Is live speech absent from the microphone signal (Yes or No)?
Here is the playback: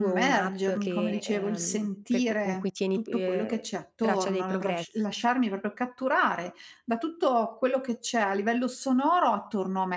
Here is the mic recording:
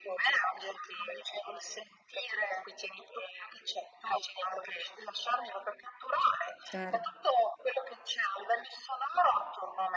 No